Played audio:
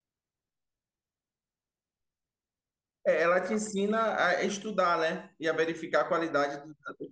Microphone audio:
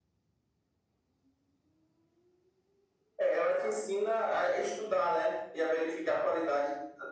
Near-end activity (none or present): none